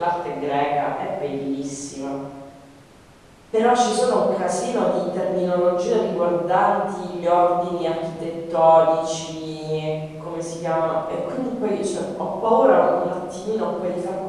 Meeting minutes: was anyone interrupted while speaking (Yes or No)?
No